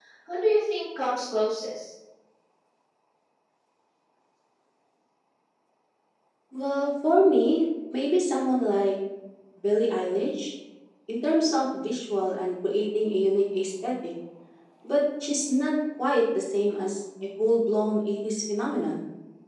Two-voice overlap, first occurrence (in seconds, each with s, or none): none